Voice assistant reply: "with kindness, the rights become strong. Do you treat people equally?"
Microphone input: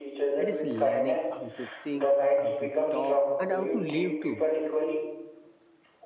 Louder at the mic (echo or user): echo